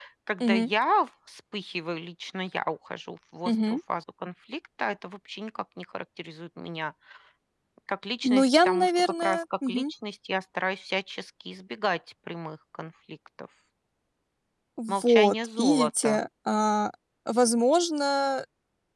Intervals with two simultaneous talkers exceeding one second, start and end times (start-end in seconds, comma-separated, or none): 8.2-9.9, 14.9-16.1